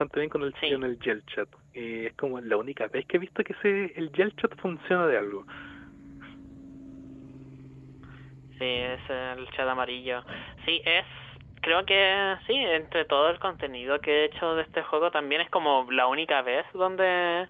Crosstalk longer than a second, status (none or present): none